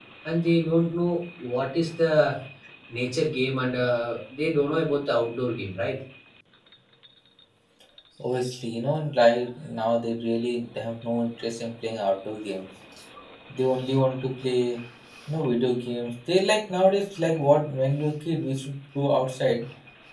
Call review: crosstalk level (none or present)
none